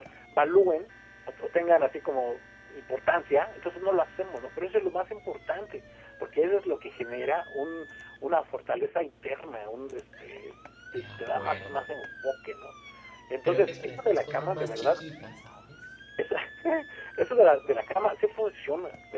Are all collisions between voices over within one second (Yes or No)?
No